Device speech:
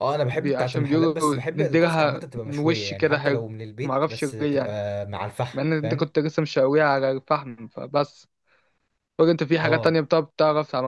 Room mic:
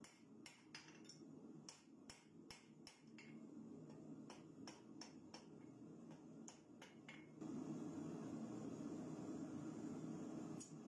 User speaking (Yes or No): No